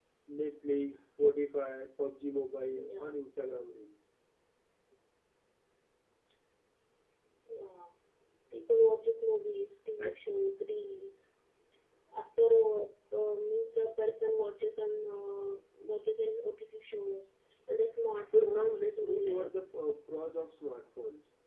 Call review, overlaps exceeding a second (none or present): present